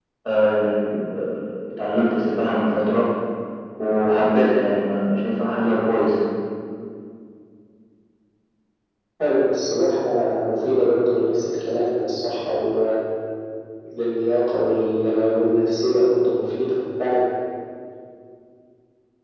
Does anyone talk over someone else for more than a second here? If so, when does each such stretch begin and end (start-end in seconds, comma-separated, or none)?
none